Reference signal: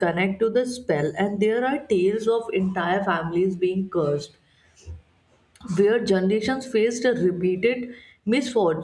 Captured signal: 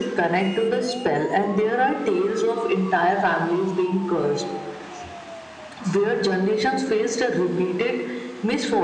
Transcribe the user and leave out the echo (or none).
none